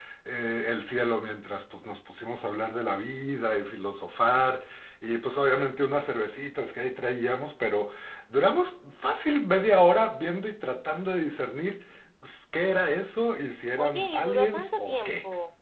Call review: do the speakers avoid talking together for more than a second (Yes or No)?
No